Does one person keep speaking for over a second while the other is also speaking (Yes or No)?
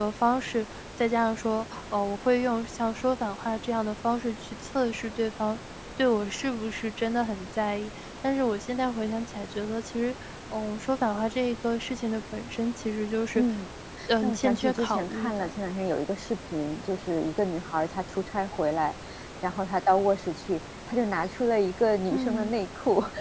Yes